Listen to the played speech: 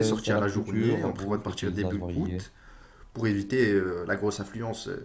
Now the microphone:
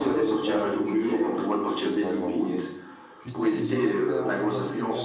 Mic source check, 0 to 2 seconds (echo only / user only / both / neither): echo only